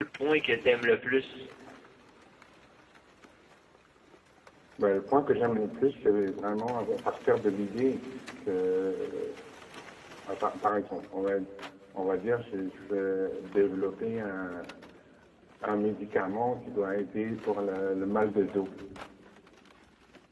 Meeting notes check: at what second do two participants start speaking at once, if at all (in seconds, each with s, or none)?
none